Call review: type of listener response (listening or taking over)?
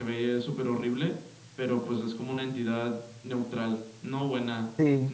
taking over